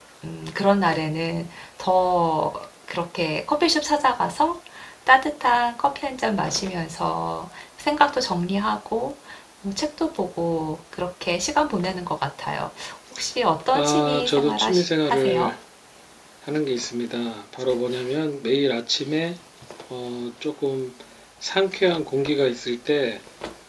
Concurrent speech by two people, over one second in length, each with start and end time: 13.7-15.5

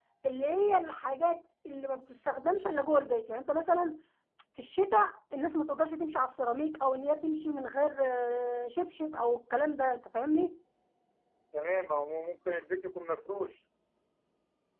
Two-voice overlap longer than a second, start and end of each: none

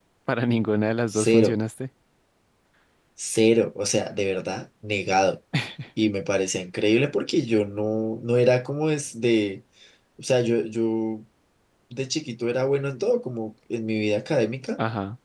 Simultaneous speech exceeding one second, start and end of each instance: none

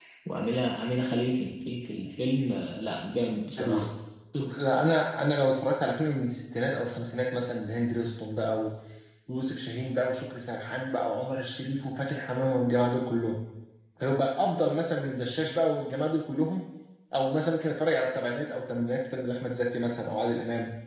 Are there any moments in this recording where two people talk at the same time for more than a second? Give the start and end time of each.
none

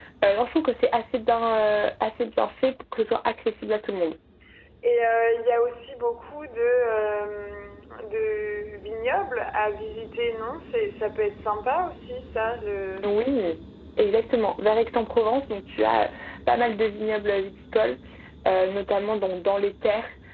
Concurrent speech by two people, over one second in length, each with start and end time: none

